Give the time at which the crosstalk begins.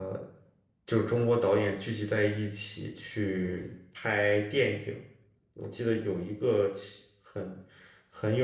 none

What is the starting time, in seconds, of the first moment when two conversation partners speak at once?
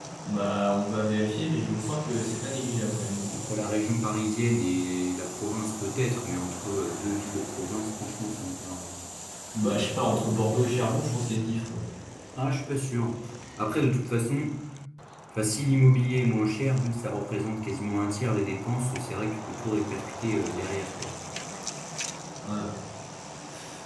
none

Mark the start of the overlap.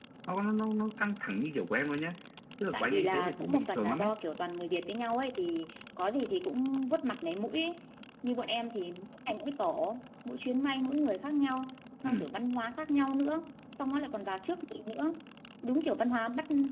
3 s

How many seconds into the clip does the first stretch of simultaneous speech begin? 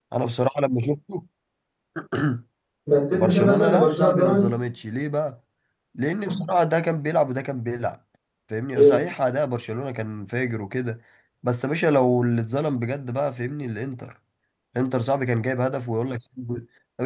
3 s

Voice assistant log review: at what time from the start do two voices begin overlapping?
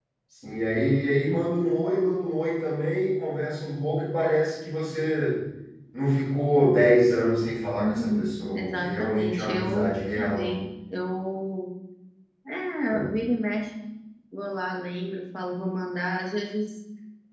8 s

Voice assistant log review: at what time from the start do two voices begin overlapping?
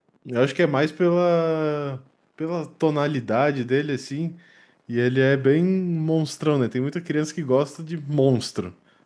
none

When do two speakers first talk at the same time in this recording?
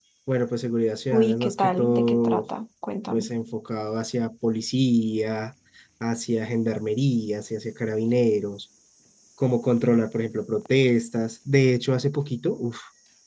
1 s

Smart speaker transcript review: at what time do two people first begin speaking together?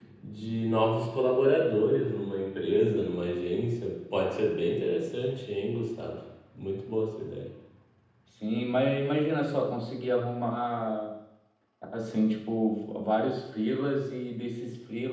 none

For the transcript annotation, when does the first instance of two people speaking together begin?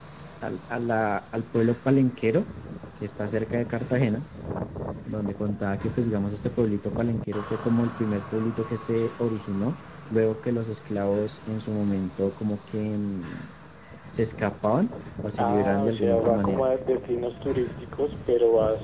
15 s

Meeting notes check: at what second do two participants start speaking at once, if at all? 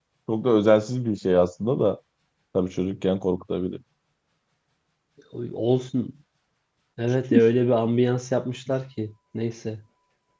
none

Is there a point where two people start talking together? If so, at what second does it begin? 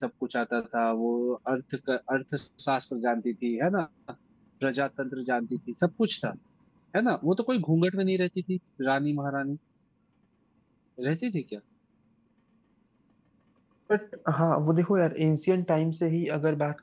none

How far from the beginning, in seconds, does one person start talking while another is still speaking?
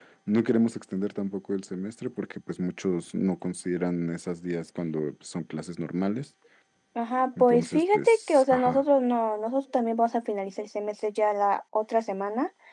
7 s

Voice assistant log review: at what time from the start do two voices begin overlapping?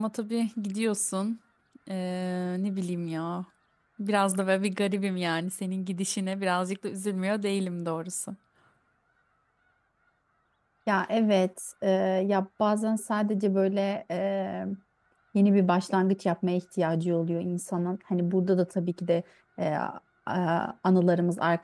none

